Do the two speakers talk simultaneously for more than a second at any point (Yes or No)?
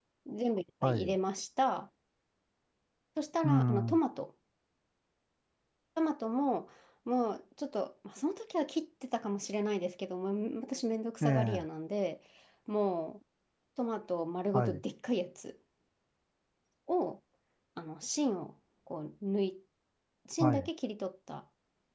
No